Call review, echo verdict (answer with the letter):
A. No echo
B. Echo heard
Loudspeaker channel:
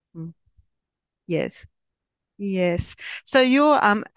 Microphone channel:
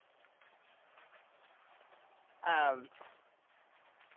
A